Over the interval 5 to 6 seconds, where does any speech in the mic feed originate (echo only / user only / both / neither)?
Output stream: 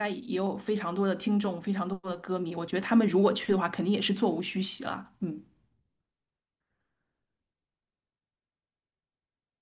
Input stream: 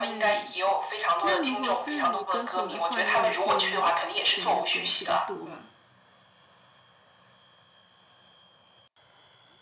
both